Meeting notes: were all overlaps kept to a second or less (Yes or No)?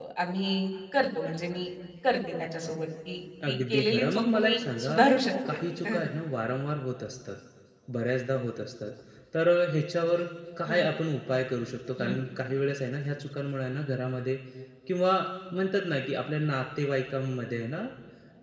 No